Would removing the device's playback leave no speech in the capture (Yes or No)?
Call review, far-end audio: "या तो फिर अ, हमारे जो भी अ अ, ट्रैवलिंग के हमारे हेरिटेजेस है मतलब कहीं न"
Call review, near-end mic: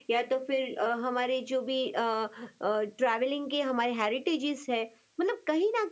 Yes